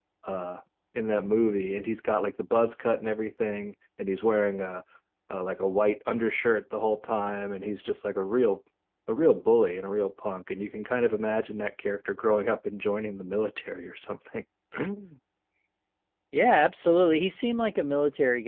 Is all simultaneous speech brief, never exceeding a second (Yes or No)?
Yes